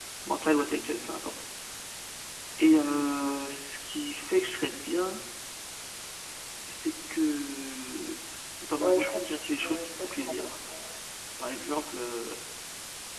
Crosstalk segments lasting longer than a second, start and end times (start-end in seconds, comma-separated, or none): 8.8-10.5